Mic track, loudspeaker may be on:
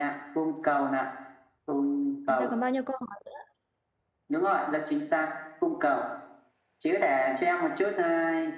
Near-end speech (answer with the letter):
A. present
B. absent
A